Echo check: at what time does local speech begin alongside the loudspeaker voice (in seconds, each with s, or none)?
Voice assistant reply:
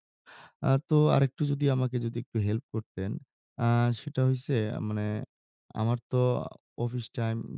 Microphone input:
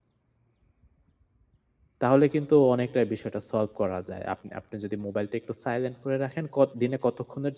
2.0 s